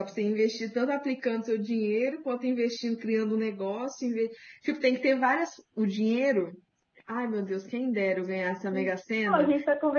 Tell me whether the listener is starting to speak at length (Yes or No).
Yes